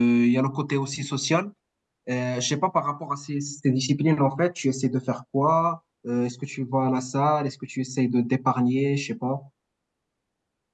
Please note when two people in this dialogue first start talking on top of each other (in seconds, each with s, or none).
none